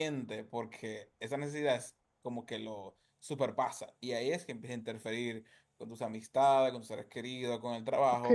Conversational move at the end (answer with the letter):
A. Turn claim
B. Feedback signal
A